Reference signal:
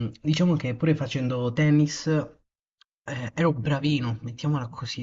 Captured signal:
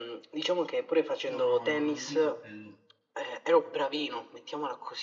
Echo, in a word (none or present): present